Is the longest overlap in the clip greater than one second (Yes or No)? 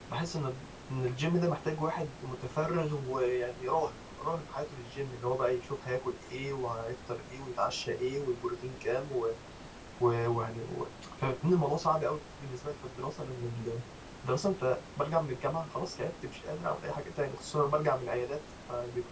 No